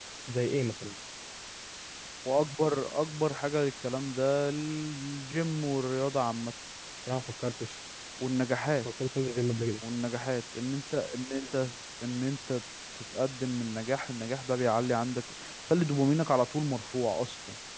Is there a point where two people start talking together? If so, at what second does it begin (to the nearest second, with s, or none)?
none